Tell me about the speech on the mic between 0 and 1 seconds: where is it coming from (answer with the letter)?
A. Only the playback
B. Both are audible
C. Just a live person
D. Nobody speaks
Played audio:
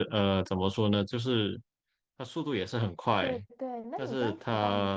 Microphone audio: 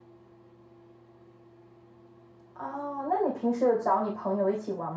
D